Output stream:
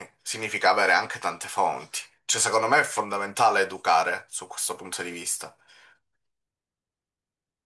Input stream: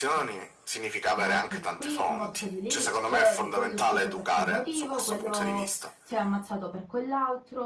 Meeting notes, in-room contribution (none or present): present